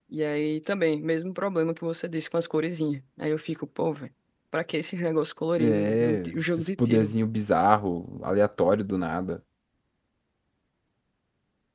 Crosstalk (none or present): present